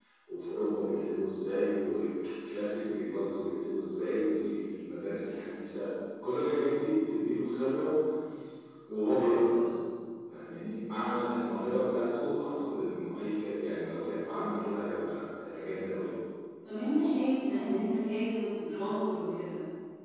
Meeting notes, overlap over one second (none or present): none